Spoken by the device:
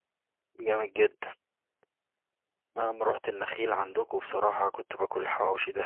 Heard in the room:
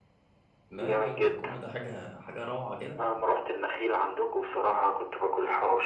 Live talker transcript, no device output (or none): لا لا البكومه ده حاجه حاجه روعه كده